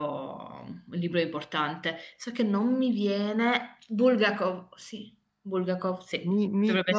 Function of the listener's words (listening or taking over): taking over